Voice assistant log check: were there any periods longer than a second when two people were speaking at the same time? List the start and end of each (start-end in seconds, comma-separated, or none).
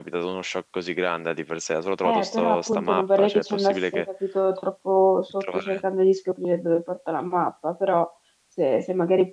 2.0-4.0